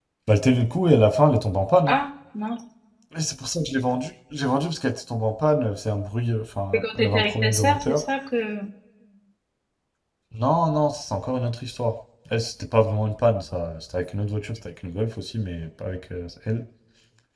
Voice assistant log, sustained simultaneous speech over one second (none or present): present